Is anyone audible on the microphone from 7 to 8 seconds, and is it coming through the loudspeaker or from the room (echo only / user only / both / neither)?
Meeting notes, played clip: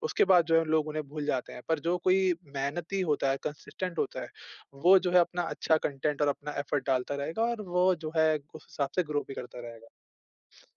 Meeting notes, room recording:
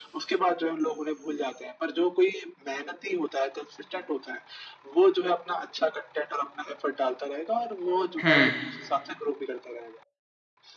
echo only